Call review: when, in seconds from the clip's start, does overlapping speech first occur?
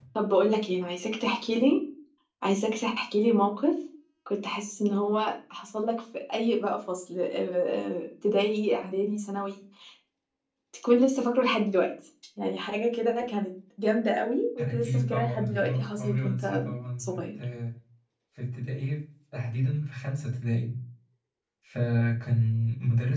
14.6 s

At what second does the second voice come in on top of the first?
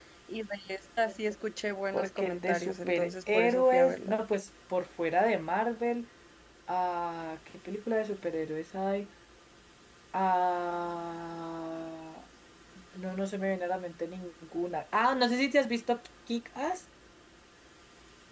1.9 s

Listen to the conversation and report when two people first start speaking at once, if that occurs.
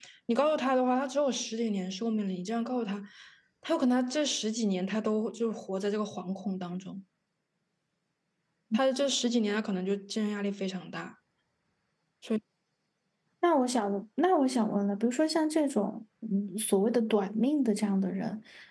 none

